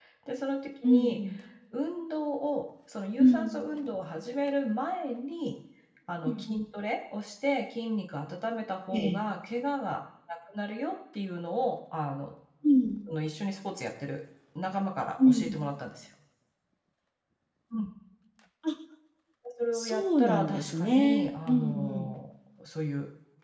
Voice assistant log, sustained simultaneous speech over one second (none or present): present